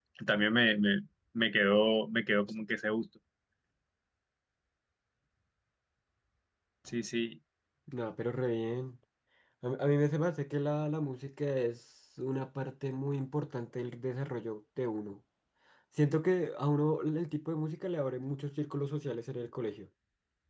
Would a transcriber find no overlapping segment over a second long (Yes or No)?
Yes